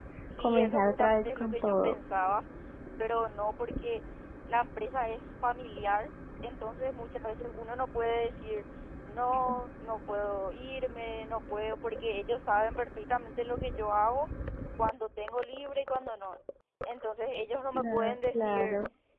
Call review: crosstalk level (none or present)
present